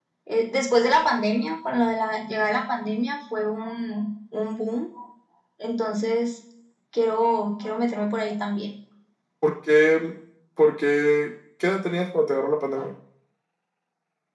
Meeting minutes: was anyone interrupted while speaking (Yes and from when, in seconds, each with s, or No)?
No